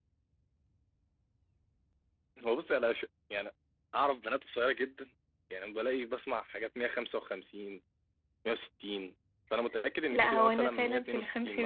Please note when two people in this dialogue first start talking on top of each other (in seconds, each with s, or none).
10.1 s